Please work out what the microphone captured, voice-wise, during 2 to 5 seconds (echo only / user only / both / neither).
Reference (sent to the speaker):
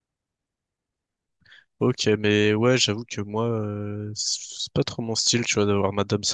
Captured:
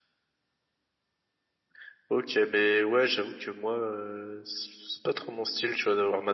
echo only